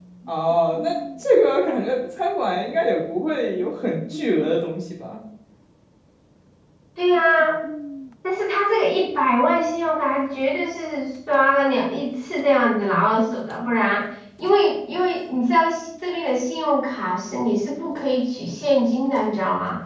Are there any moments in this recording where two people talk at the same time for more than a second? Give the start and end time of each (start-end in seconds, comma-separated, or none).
none